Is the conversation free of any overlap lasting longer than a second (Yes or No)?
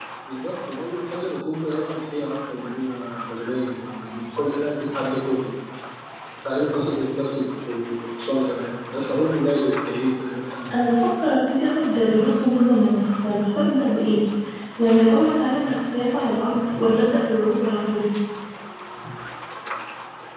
Yes